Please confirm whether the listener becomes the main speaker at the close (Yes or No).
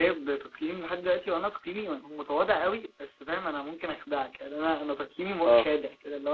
No